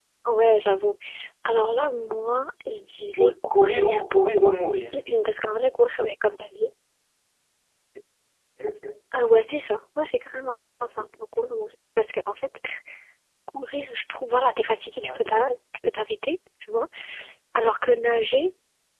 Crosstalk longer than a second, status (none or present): present